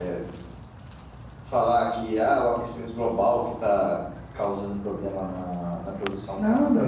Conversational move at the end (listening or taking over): taking over